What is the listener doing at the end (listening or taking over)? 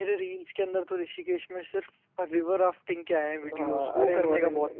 taking over